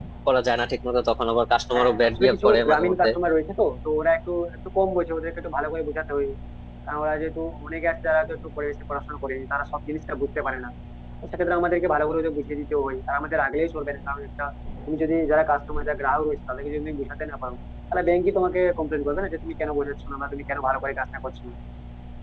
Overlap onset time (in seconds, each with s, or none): 1.7 s